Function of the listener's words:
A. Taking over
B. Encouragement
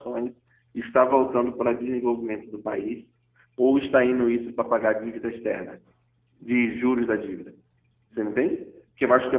B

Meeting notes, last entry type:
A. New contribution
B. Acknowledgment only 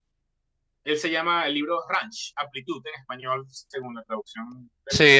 A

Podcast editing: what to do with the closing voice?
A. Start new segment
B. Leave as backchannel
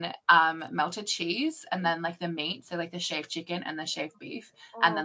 B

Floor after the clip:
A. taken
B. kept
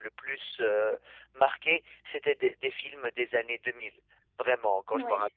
B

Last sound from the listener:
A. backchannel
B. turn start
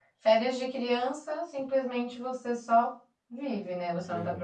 A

